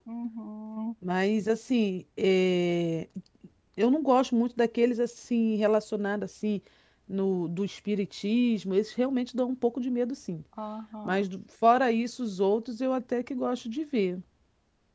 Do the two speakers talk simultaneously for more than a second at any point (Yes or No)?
No